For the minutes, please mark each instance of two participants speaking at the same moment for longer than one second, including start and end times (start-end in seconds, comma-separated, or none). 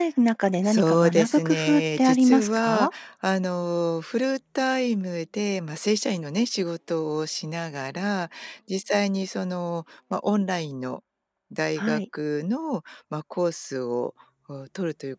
0.6-2.9